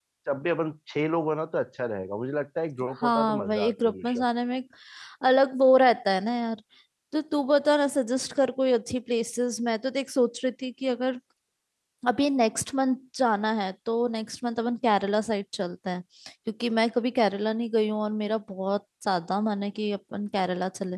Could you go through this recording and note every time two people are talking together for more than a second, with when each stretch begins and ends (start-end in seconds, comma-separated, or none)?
3.0-4.2